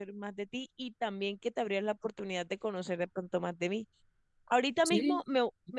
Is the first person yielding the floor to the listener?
No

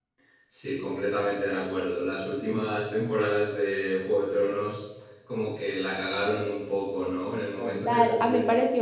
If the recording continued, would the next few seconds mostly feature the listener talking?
Yes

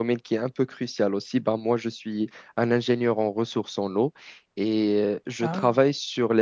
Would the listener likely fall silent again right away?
Yes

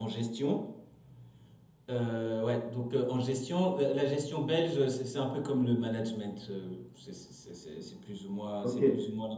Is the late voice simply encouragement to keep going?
No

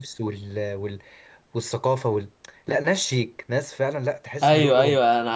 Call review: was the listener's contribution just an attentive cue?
No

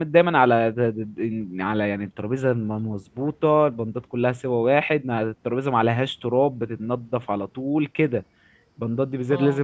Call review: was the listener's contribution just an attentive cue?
Yes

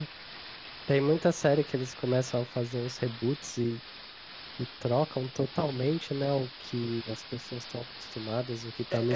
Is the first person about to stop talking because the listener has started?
Yes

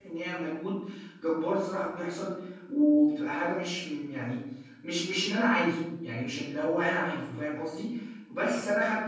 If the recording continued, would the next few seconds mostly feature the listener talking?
No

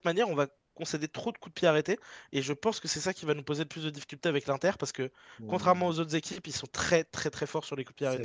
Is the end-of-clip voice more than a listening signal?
Yes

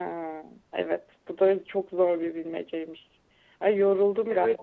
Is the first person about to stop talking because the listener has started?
No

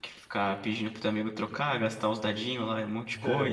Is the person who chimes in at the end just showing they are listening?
Yes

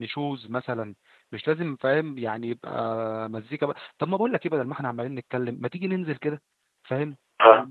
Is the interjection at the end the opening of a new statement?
No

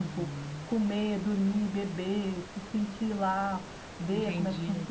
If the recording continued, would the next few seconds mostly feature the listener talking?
Yes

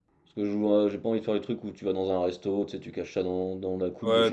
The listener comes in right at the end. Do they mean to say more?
Yes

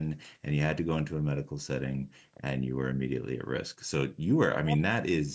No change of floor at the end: Yes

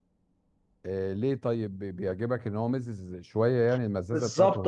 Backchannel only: No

